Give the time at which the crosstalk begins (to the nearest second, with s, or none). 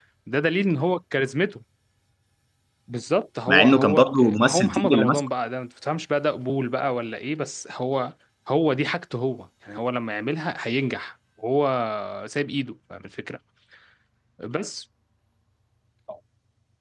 3 s